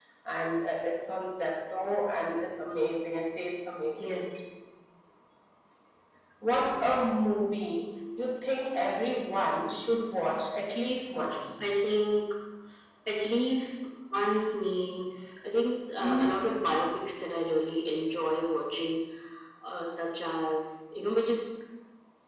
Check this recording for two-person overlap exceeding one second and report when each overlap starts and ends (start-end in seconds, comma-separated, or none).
none